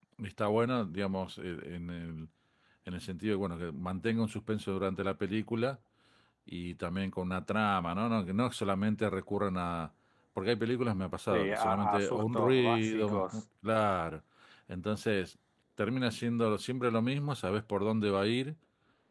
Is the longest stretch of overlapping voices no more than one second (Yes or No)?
No